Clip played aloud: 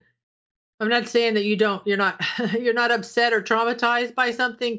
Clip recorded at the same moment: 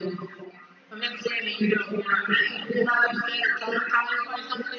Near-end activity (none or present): none